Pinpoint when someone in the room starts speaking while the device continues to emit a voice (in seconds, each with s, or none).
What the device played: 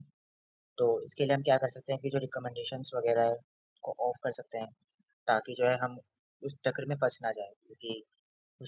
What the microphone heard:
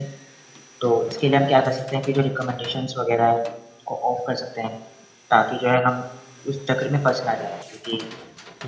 none